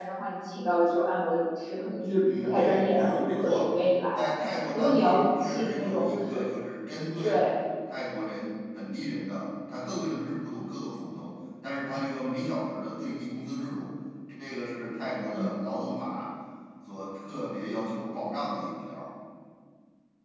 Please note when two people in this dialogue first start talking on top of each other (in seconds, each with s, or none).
2.4 s